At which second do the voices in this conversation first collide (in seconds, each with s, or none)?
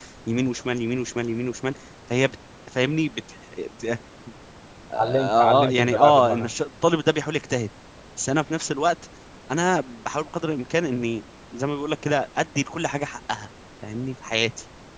5.0 s